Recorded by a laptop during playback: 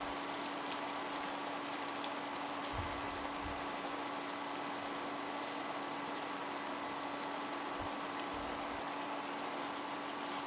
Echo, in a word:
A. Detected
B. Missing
B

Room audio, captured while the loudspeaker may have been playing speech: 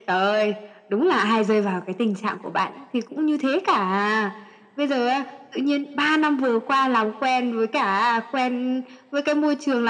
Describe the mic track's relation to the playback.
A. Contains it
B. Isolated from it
A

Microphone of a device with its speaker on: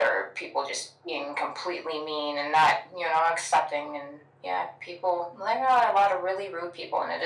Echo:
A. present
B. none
A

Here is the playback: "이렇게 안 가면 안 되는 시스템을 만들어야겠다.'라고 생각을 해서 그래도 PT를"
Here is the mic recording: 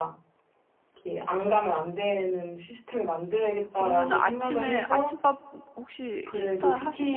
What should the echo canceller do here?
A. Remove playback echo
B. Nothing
A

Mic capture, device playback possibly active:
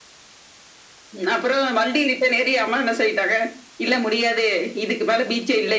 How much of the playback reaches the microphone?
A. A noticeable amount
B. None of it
A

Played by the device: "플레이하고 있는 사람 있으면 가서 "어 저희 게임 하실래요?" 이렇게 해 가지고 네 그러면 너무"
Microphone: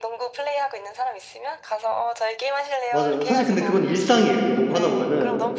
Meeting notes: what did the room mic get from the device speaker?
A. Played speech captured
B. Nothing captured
A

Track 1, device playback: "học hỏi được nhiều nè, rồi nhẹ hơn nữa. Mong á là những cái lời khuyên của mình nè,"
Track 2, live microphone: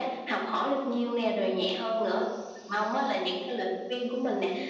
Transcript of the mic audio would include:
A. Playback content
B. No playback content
A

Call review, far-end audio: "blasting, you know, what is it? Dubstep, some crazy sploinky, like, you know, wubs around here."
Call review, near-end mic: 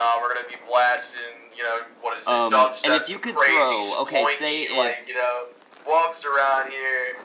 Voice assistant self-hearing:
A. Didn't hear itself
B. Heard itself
B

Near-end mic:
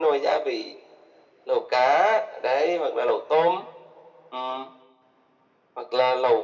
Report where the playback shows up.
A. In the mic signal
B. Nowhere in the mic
A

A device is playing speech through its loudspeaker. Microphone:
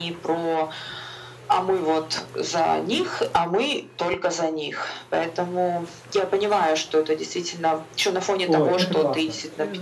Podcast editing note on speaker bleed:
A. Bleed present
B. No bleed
A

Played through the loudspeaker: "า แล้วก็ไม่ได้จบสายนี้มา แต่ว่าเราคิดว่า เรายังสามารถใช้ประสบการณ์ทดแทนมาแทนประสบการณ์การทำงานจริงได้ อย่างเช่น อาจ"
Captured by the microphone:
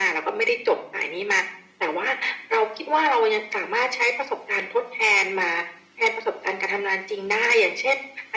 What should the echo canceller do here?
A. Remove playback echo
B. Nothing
A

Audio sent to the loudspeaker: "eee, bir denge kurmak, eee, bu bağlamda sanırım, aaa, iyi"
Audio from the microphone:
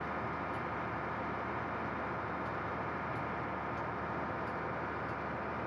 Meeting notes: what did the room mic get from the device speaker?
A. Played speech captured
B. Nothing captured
B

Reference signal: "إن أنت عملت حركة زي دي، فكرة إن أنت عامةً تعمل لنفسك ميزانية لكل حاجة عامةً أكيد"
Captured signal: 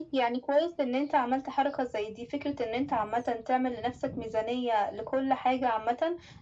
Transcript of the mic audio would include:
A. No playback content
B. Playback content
B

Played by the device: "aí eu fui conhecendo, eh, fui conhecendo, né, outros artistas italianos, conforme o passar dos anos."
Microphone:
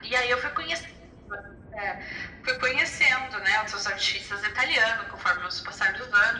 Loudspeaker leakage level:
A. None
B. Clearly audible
B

